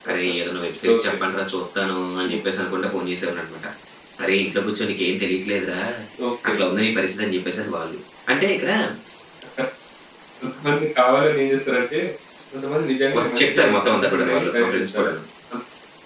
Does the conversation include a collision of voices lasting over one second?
Yes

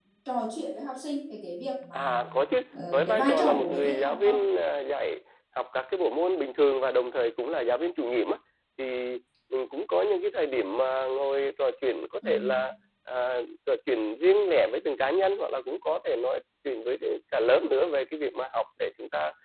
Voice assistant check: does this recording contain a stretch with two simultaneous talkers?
Yes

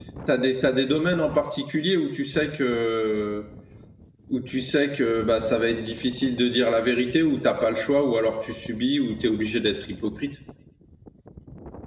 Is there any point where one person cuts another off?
No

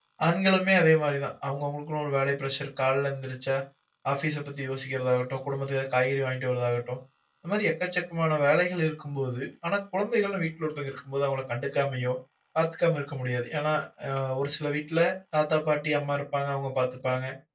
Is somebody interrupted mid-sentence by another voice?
No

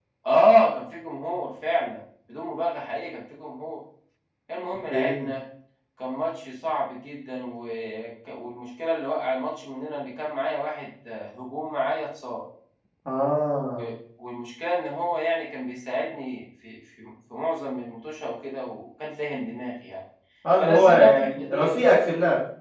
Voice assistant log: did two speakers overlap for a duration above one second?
Yes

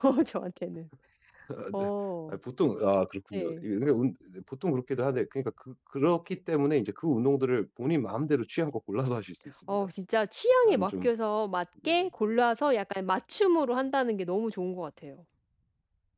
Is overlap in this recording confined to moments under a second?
Yes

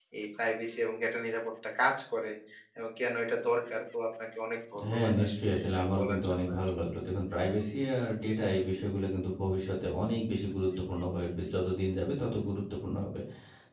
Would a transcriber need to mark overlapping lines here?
Yes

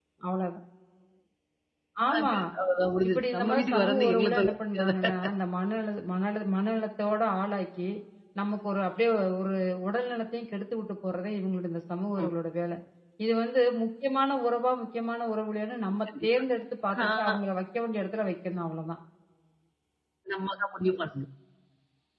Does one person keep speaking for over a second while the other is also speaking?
Yes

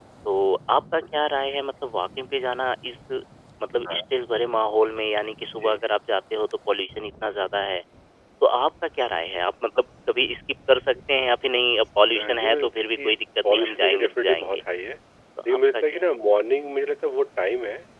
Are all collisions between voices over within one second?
No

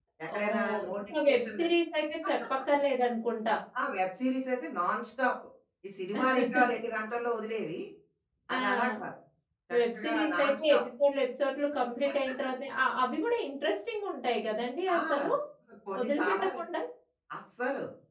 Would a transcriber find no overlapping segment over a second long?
No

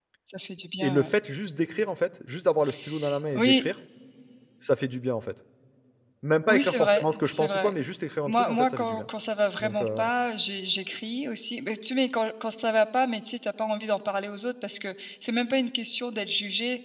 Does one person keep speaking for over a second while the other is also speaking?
Yes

